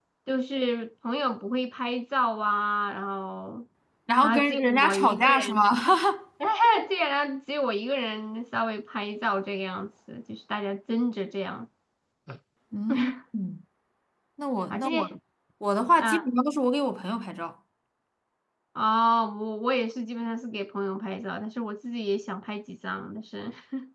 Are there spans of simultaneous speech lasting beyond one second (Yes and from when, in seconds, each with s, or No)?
Yes, from 4.2 s